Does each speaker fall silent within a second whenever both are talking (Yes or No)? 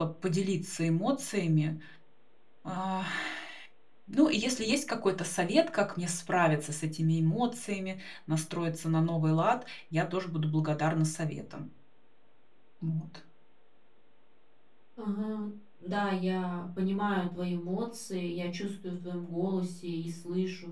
Yes